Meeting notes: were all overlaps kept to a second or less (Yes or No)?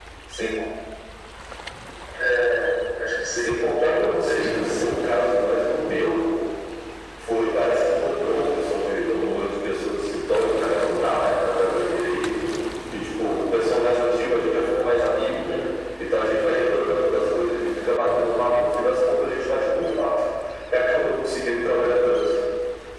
No